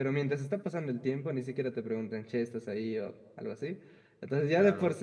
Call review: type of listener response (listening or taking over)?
listening